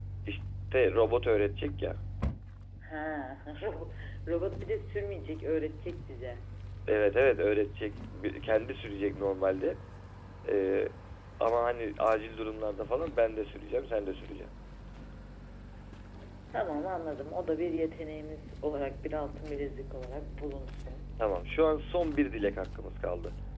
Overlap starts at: none

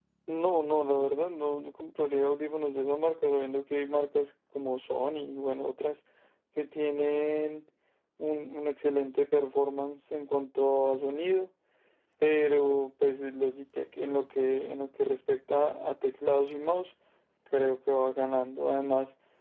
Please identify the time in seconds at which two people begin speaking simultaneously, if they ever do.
none

